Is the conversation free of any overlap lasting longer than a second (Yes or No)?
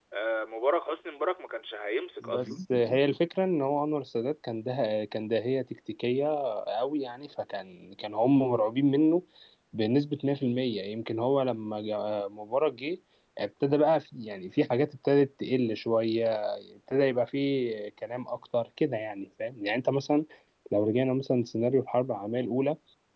Yes